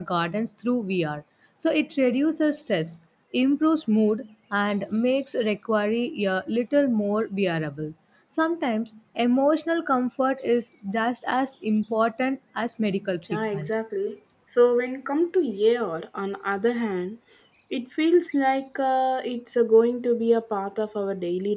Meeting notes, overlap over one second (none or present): none